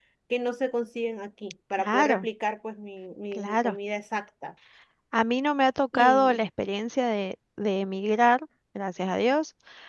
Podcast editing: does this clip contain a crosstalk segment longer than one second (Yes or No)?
No